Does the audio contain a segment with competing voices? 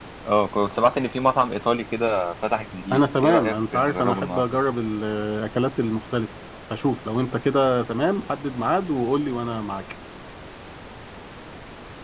Yes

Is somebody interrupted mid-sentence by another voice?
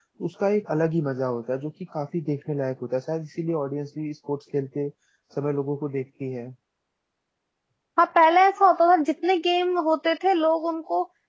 No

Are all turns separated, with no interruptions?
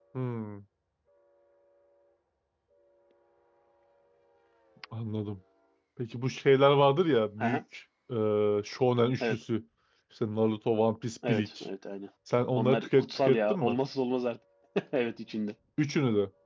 No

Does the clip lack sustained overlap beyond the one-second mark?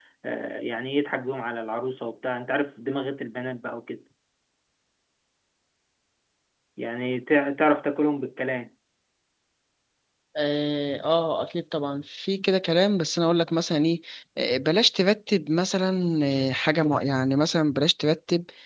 Yes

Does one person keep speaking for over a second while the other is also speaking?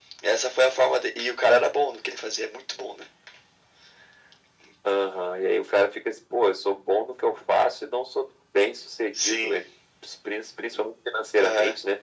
No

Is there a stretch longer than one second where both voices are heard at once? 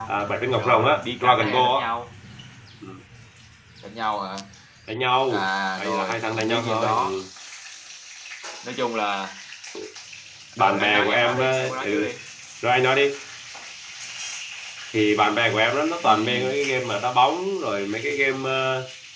Yes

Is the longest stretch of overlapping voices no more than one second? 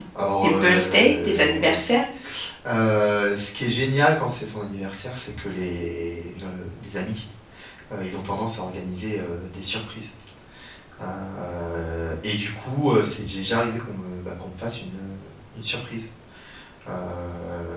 No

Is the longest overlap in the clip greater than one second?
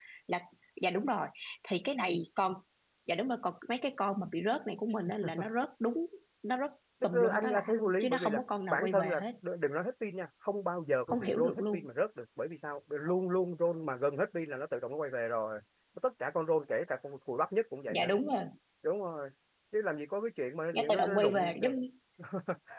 Yes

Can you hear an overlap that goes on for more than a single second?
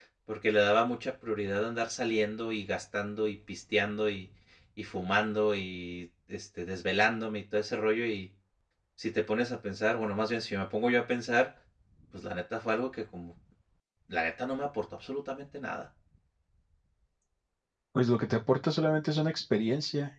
No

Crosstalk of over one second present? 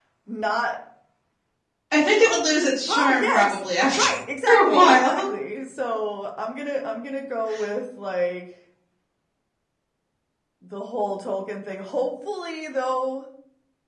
Yes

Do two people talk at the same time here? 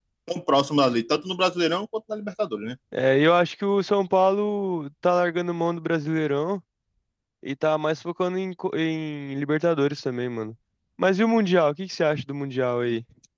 No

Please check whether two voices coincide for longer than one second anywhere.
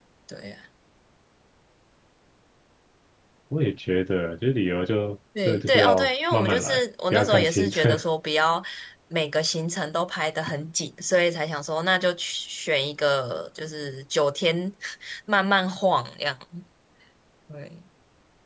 Yes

